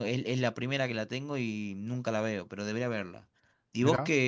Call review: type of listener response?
listening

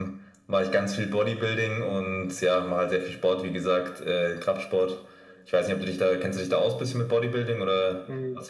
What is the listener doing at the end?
taking over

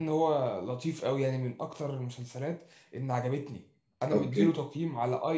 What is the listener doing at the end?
listening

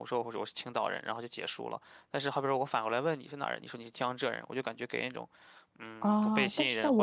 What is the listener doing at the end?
taking over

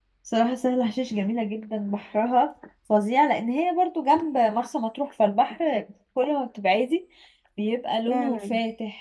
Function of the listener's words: listening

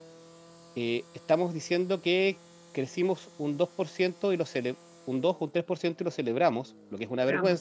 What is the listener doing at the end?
listening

